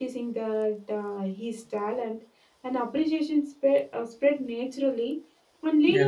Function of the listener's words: listening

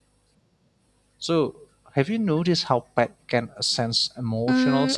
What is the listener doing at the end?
taking over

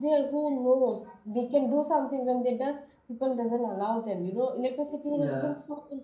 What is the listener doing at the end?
listening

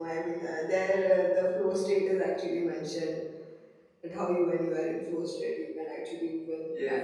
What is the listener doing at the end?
taking over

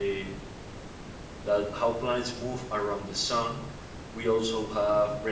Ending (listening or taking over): listening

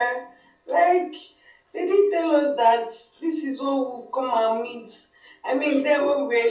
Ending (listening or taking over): listening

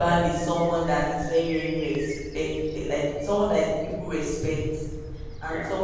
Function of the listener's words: listening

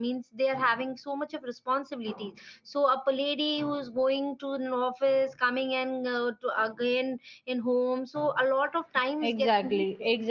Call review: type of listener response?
taking over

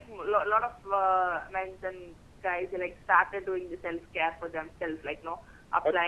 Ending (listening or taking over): listening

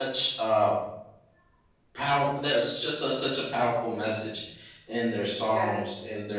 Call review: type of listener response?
listening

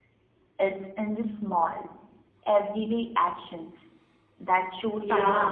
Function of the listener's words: taking over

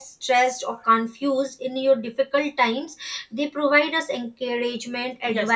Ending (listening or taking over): taking over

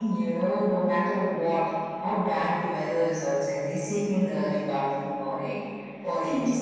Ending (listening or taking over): listening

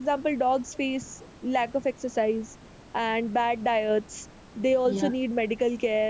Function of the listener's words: listening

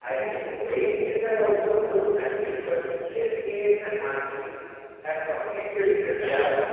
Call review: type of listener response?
taking over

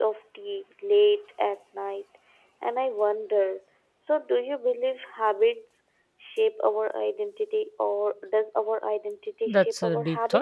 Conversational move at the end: taking over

